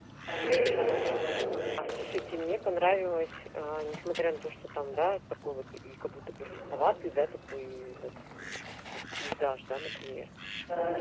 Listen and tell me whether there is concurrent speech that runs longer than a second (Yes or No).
No